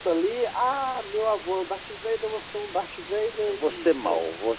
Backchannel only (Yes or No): No